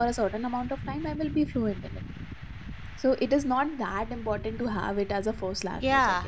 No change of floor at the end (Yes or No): No